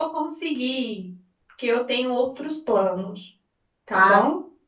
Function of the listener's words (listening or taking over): taking over